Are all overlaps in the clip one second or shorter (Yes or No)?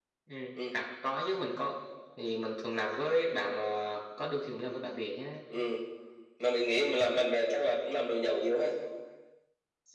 Yes